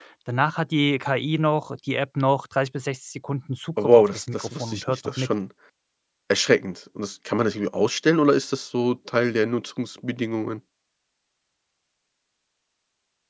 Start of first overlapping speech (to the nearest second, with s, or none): 4 s